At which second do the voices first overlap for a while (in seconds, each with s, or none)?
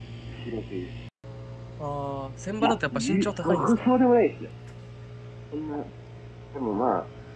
2.6 s